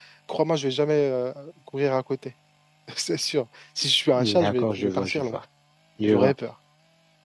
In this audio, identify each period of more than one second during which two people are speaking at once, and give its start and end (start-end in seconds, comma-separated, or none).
4.1-5.4